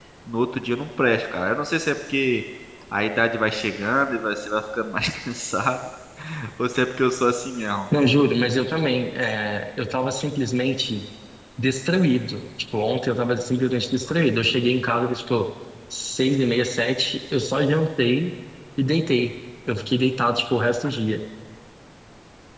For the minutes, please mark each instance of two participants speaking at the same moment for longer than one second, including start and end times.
none

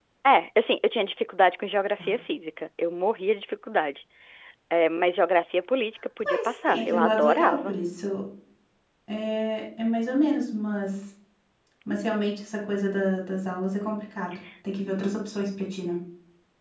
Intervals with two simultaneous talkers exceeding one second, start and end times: 6.2-7.7

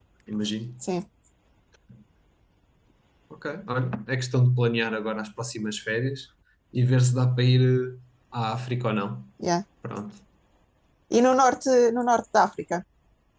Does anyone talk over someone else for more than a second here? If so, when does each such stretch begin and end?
none

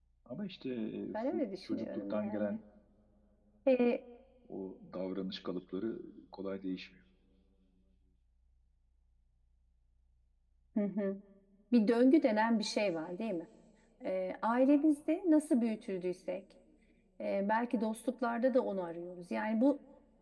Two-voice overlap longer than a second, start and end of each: 1.1-2.6

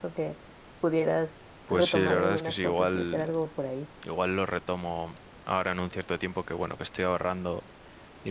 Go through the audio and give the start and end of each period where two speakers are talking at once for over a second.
1.7-3.3

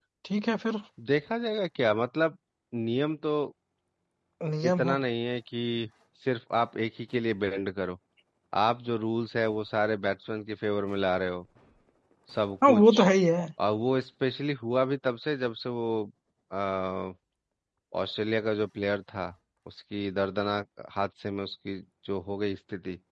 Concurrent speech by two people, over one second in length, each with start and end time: none

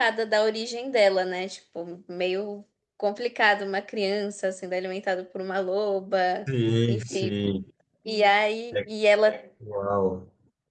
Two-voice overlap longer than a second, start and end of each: none

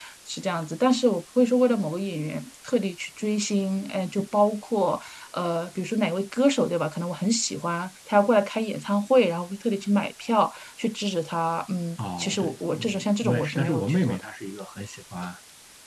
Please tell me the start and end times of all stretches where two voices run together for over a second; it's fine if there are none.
12.2-14.2

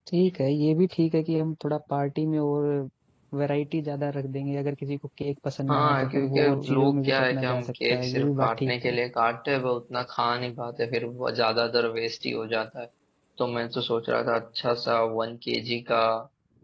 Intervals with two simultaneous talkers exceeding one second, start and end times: 5.7-8.9

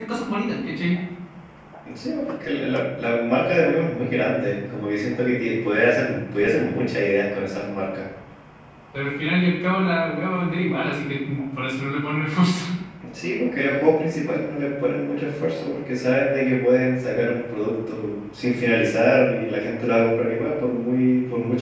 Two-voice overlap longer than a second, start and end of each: none

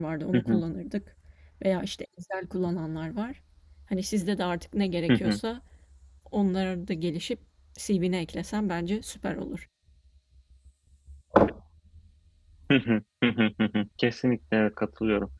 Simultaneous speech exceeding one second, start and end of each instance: none

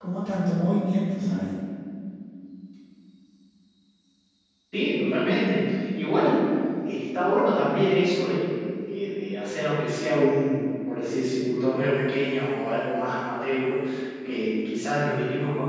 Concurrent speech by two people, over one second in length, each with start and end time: none

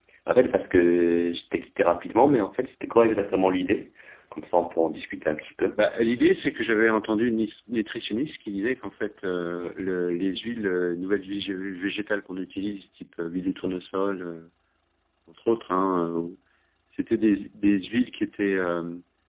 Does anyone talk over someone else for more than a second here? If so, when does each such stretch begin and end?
none

